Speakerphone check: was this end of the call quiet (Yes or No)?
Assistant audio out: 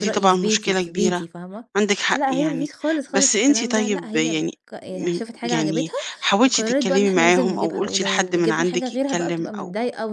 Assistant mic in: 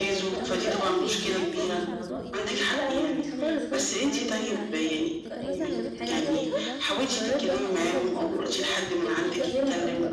No